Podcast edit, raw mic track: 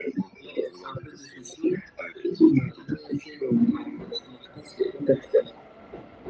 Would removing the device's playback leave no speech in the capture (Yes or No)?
Yes